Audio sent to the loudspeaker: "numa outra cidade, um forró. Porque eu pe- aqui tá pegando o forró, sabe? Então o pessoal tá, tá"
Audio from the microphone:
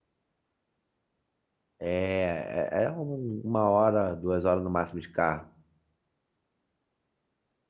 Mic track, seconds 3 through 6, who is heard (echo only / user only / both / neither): user only